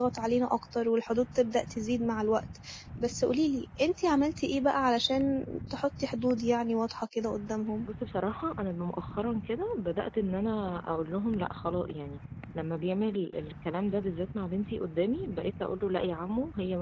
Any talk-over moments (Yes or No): No